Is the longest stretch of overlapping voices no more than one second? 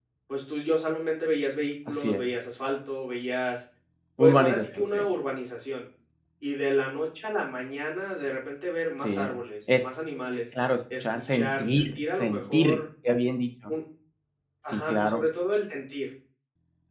No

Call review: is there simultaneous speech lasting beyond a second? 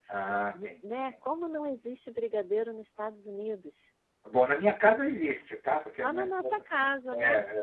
Yes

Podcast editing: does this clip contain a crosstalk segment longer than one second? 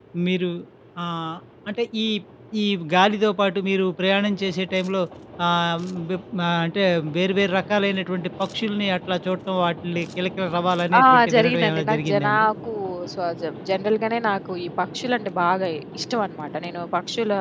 Yes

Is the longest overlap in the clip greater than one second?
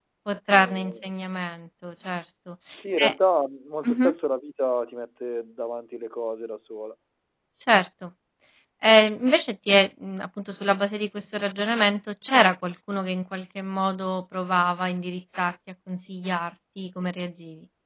No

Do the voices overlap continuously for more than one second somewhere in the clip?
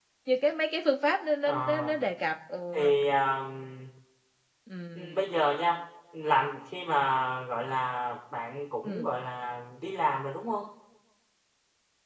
No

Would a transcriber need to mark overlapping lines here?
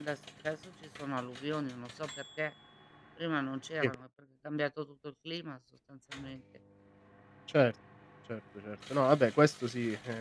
No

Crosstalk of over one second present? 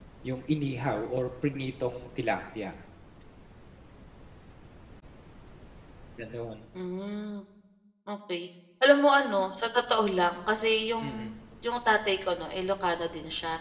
No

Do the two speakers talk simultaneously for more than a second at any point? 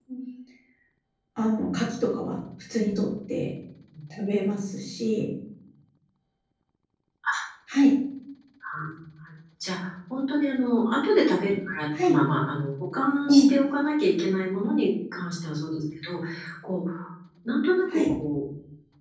No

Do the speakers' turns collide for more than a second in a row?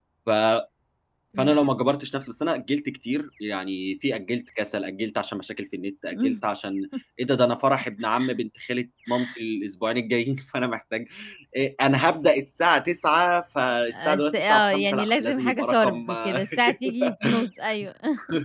Yes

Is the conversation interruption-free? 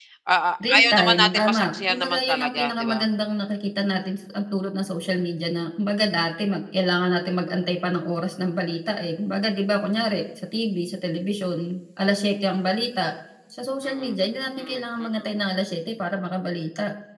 No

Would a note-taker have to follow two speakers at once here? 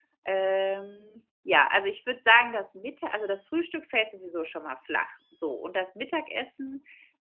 No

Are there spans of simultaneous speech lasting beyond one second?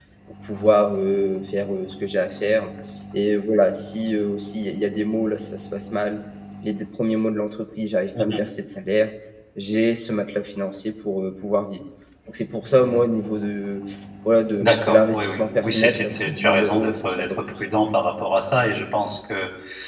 Yes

